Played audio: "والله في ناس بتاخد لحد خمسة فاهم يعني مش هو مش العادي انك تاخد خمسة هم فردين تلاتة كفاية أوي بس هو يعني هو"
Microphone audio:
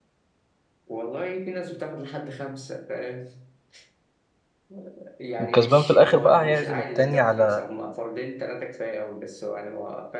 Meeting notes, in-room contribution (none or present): present